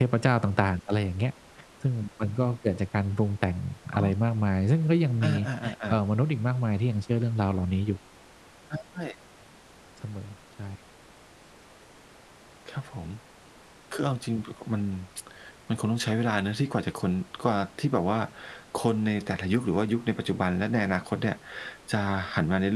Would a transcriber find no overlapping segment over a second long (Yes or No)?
Yes